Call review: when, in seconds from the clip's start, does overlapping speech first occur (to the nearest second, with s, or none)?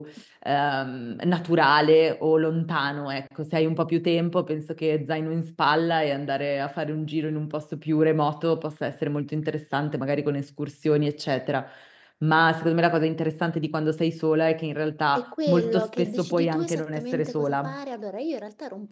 15 s